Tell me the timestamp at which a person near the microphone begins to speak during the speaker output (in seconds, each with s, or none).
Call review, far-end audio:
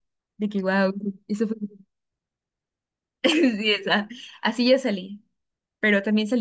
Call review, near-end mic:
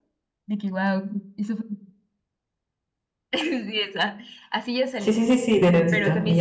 5.0 s